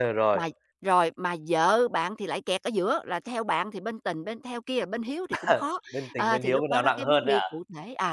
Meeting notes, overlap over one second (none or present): present